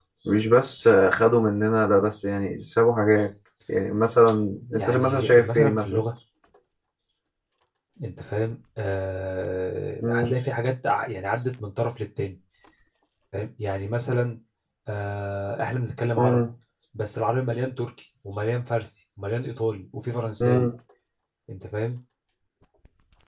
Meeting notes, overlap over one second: present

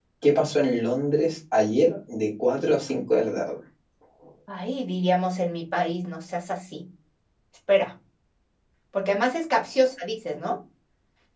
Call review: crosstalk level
none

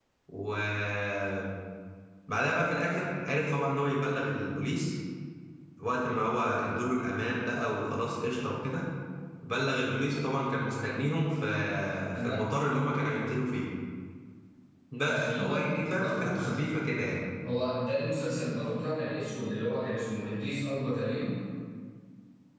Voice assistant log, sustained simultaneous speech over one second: present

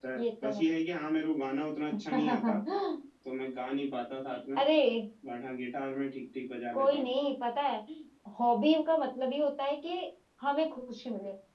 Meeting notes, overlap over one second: none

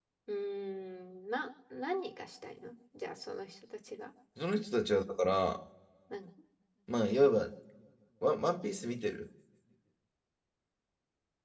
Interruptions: none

